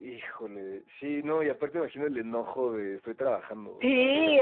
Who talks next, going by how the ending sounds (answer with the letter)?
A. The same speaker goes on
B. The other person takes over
B